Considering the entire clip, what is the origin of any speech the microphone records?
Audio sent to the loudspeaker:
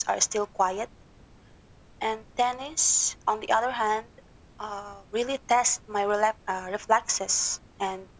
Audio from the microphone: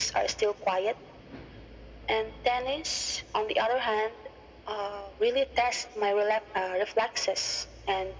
echo only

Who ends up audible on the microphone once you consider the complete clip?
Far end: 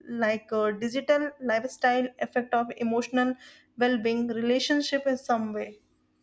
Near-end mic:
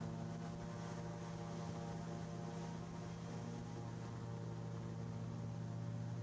neither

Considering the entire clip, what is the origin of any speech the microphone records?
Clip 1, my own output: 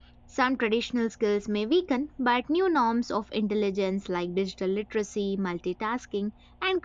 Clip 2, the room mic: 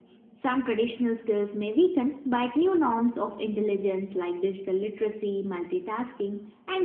echo only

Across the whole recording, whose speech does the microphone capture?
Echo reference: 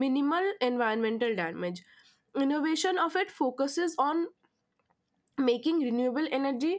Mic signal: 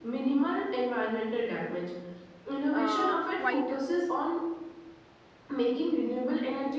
both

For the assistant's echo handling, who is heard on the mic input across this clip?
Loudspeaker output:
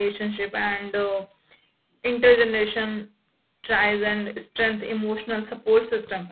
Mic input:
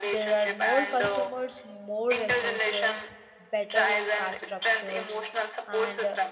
both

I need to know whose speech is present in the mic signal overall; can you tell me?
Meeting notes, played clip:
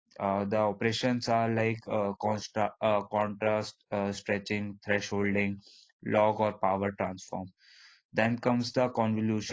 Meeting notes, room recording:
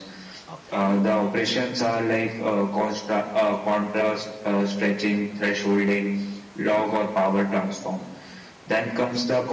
both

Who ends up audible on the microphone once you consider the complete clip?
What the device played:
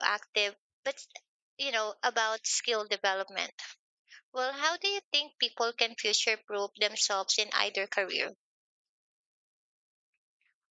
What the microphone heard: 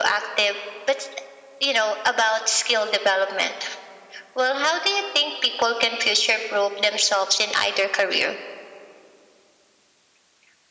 echo only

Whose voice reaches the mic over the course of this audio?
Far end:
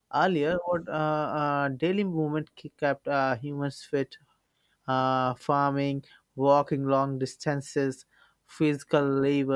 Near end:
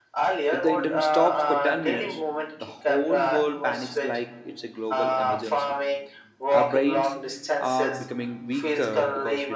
both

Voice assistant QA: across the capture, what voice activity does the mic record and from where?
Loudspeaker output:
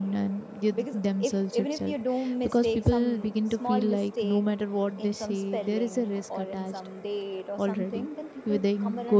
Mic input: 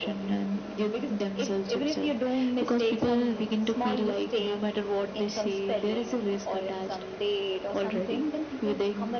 echo only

